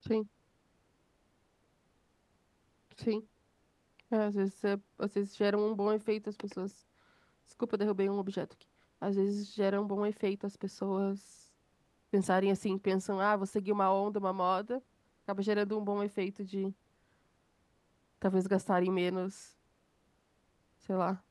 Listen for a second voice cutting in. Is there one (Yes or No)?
No